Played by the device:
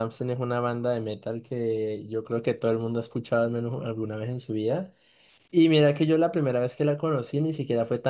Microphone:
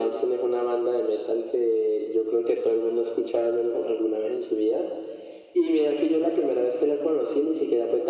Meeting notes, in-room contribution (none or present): none